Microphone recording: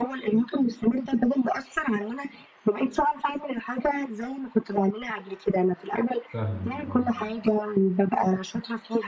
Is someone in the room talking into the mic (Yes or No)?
Yes